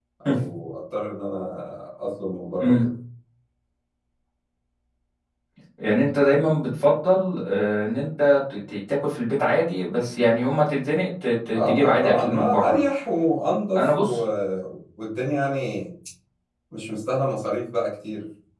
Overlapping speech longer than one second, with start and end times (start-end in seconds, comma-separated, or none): 11.5-12.8